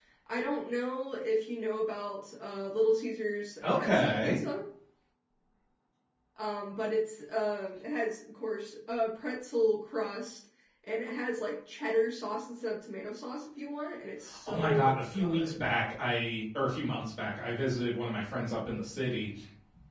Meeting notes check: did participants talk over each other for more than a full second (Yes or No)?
Yes